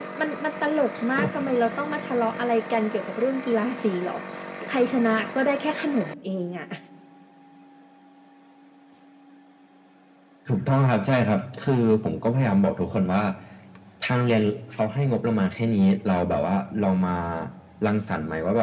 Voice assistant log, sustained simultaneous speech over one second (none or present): none